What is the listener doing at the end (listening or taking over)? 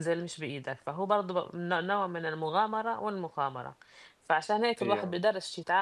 listening